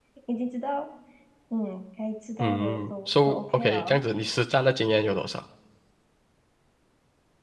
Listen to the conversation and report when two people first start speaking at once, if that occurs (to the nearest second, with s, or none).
2 s